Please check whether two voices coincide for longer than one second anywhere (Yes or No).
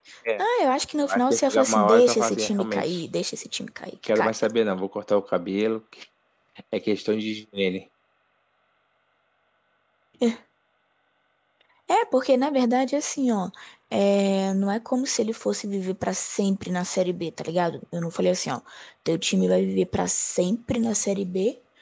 Yes